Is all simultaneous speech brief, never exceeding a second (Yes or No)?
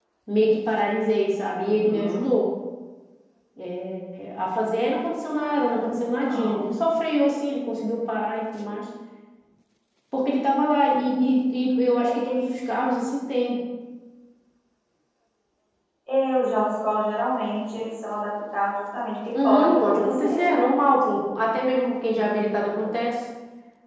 No